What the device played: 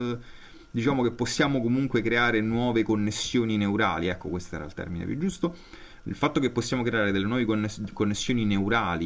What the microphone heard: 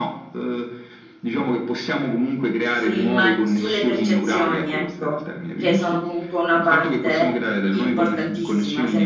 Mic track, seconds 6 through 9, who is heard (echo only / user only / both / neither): both